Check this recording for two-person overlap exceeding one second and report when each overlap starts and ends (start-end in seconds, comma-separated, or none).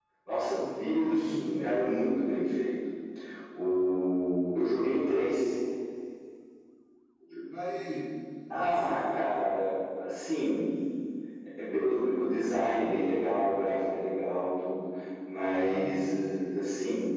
0.6-1.9